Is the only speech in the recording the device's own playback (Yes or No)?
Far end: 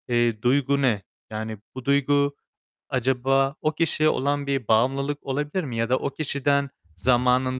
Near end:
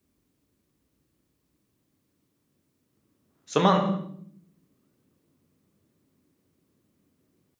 No